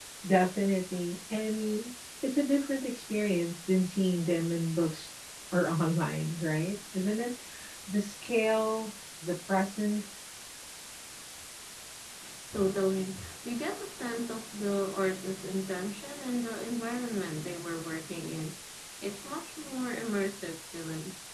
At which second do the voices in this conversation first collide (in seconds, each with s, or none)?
none